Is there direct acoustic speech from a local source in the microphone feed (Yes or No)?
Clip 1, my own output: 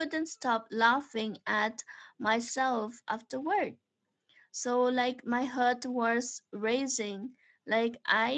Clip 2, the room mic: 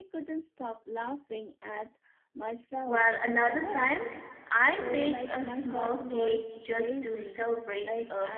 Yes